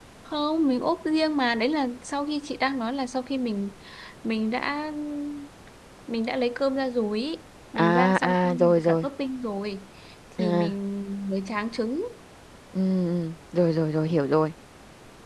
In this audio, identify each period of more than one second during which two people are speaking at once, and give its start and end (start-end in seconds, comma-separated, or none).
7.8-9.1